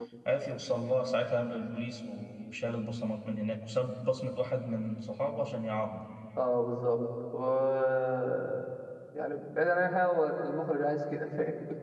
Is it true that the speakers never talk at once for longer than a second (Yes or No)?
Yes